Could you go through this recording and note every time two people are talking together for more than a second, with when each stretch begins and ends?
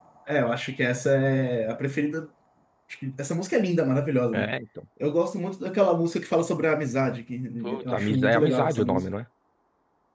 7.6-9.1

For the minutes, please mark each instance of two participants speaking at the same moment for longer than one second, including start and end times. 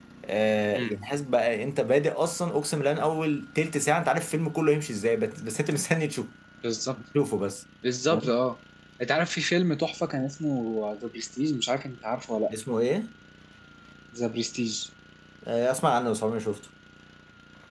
none

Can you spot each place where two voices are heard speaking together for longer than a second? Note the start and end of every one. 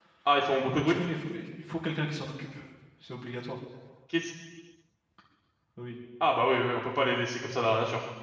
none

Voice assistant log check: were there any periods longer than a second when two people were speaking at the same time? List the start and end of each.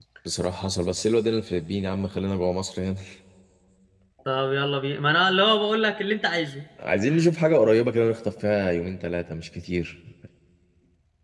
none

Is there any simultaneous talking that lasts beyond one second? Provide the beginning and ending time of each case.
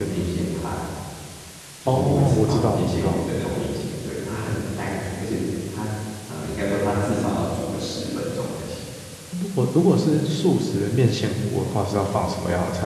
1.9-3.2

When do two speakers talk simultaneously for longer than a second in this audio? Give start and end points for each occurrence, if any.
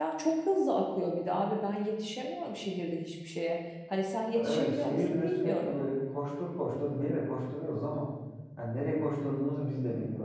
4.3-5.8

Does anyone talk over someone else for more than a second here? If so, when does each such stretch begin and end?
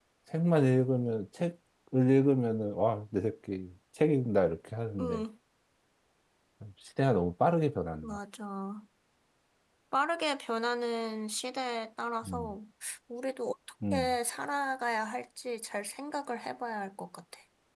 none

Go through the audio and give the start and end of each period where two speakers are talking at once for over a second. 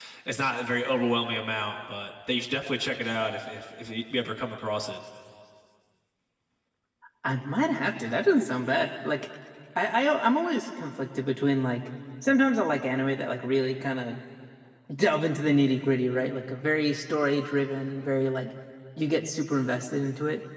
none

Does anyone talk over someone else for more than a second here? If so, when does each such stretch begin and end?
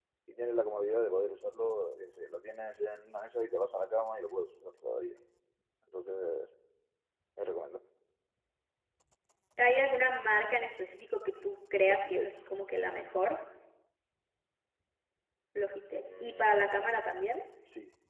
16.0-17.2

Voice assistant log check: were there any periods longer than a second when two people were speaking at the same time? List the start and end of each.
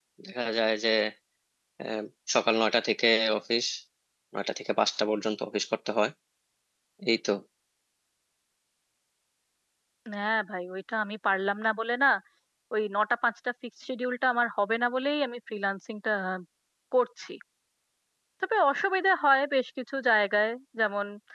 none

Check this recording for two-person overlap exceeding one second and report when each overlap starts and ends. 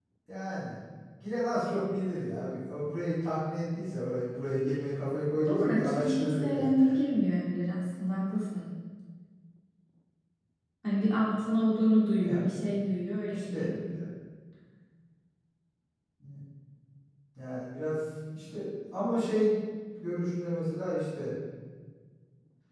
5.5-6.7

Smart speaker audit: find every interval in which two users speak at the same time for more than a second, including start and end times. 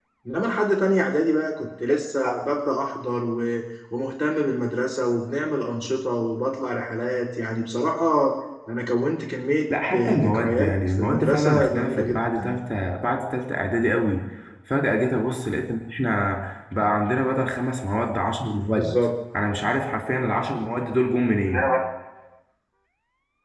9.9-12.6

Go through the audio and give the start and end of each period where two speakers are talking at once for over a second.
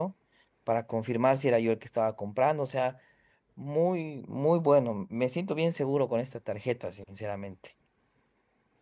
none

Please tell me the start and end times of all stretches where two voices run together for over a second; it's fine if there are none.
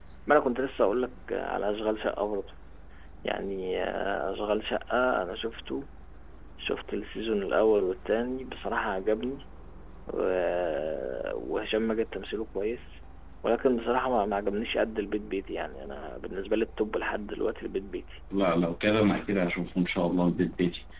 none

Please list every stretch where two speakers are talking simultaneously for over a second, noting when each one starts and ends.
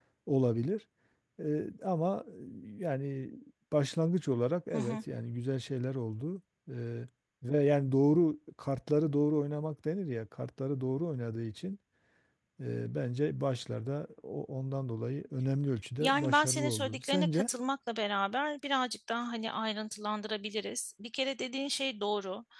16.0-17.5

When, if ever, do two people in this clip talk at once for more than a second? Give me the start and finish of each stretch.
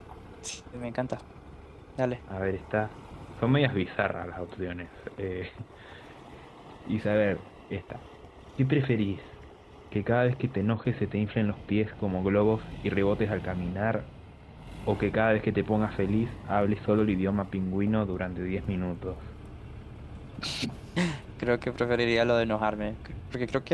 none

